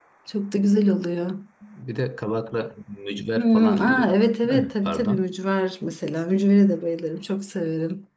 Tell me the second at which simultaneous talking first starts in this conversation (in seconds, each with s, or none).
3.4 s